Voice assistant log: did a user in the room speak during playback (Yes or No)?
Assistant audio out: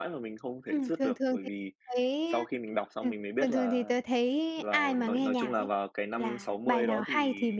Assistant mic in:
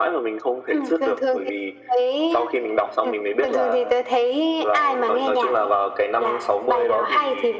No